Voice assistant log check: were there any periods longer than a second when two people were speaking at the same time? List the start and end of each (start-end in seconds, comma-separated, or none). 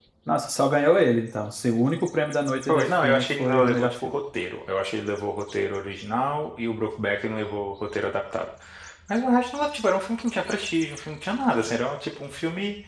2.7-4.2